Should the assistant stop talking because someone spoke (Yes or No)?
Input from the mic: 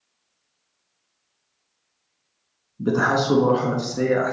Yes